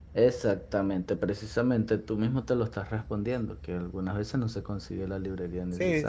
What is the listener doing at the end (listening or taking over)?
taking over